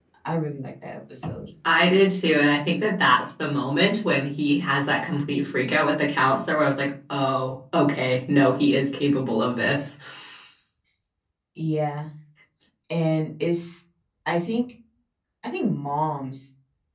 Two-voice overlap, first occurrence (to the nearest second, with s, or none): none